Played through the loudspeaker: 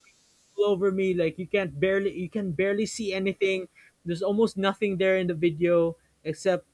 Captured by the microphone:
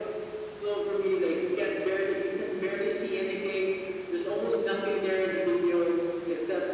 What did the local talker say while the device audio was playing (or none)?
none